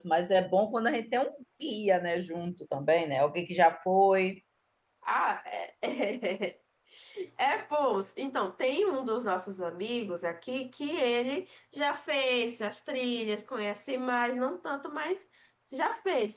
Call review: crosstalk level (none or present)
none